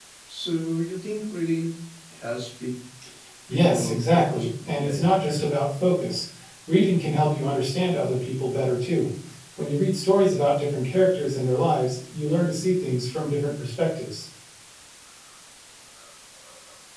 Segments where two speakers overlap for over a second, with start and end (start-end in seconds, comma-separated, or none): 3.5-5.4